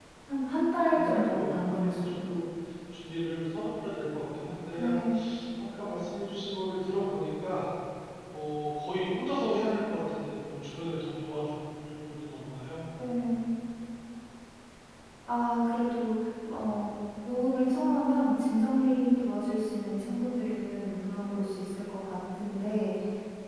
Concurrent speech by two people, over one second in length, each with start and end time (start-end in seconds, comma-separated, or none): 0.9-2.3